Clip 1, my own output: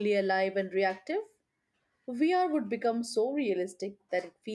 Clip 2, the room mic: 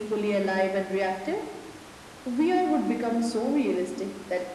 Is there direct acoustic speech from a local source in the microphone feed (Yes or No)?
No